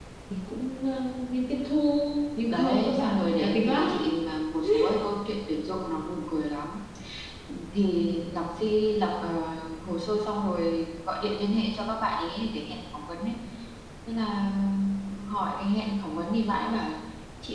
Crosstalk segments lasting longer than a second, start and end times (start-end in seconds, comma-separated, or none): 2.5-3.8